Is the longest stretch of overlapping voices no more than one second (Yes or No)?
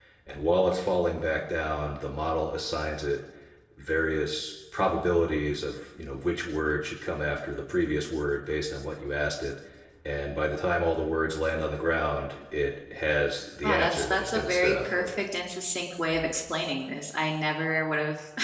No